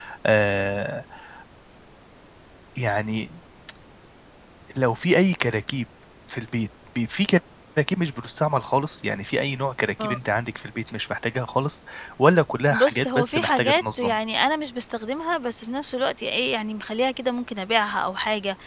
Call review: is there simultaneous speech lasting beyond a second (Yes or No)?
Yes